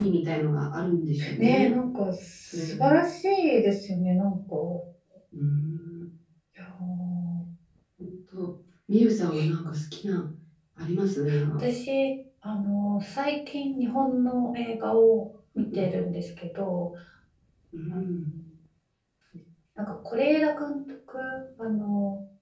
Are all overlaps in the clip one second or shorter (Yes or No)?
Yes